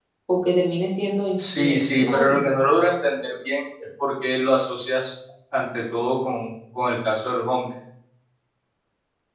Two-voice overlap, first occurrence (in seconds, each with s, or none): 1.4 s